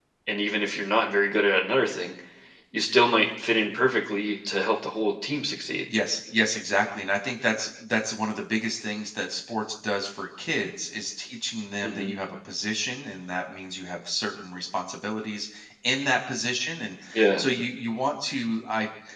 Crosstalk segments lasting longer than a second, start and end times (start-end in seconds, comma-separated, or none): none